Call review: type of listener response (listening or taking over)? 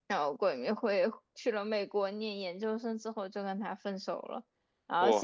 listening